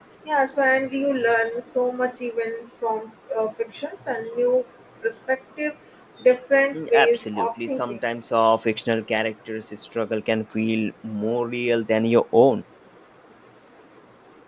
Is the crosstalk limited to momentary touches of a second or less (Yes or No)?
No